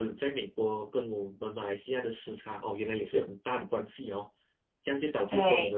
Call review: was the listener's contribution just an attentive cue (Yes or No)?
Yes